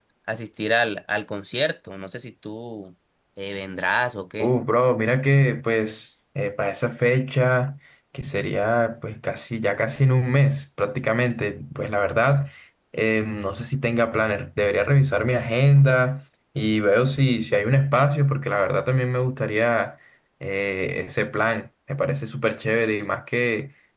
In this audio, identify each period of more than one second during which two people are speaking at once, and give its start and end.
none

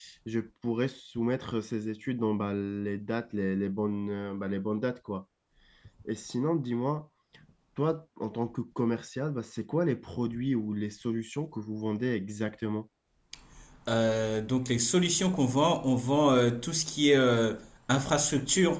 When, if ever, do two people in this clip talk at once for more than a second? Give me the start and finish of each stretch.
none

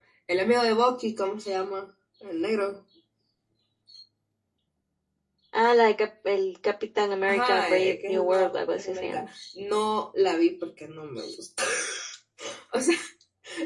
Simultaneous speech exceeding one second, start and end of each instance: 7.3-9.3

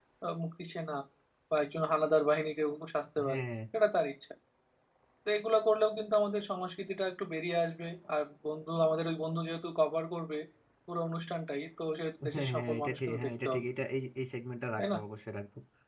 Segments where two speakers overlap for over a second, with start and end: 12.3-13.6

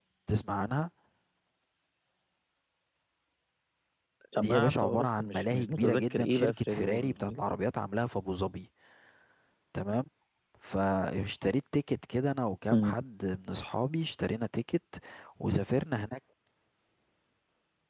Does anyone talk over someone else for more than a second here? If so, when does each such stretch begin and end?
4.4-7.4

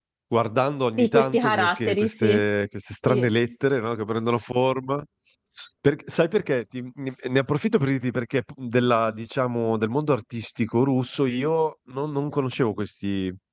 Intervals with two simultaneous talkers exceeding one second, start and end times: 1.0-2.4

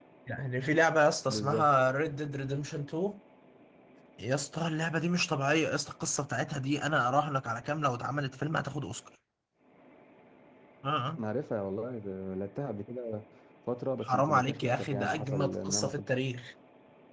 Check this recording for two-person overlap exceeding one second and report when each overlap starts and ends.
14.0-16.1

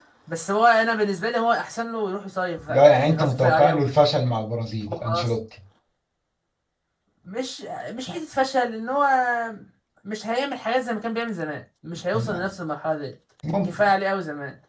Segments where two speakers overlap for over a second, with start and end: 2.7-4.0

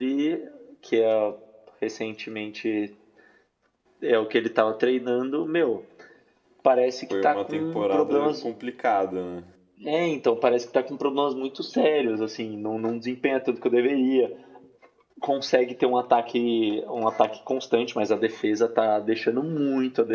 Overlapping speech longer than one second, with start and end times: 7.1-8.5

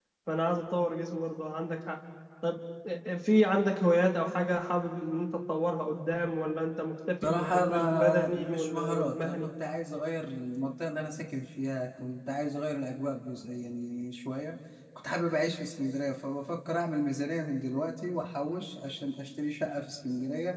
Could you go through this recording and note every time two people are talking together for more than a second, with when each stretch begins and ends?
7.2-9.3

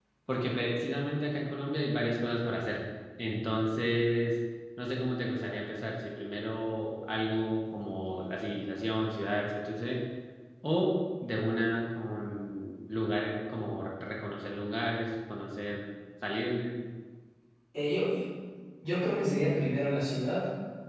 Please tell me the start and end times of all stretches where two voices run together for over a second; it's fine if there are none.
none

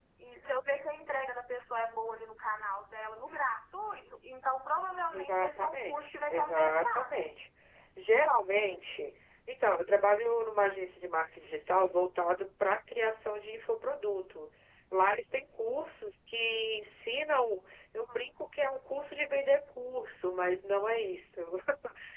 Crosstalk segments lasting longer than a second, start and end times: 5.1-7.2

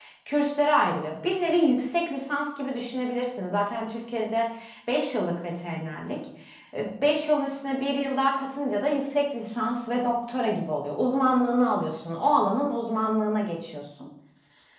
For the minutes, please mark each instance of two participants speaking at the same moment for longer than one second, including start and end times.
none

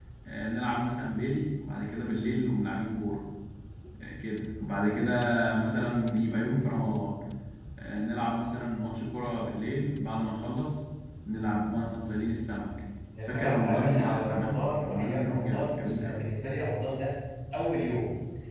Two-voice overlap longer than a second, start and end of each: 13.3-16.1

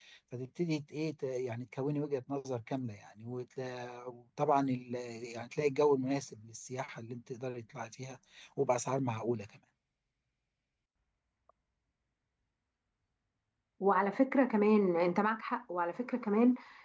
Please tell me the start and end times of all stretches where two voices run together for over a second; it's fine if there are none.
none

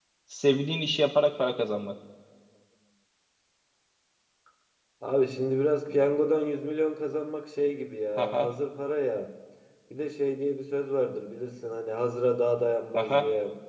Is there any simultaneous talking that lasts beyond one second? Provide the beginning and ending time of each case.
none

